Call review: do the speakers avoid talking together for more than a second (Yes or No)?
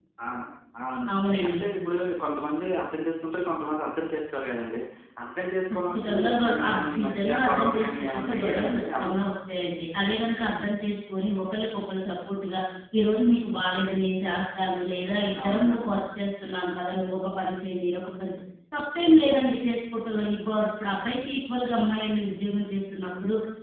No